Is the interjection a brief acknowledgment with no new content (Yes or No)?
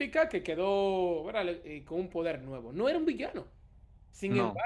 Yes